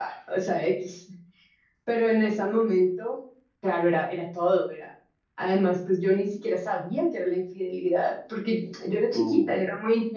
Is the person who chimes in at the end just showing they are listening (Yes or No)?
Yes